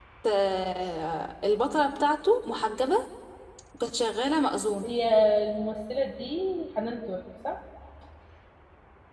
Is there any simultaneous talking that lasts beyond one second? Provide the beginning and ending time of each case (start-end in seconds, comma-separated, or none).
none